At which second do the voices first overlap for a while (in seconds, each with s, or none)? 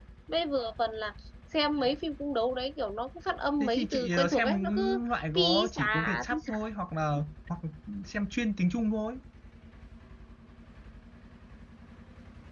3.6 s